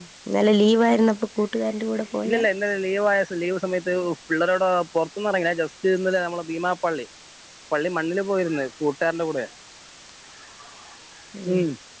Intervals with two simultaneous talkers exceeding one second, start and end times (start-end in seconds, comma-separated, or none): none